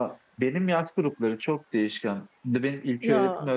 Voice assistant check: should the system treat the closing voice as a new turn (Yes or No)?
No